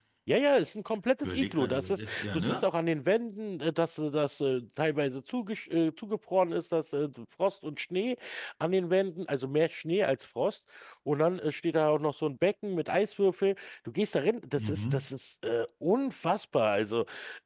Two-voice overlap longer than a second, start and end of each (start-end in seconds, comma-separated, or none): 1.2-2.6